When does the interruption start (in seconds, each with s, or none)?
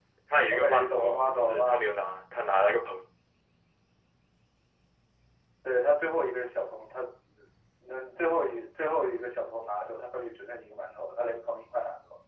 0.5 s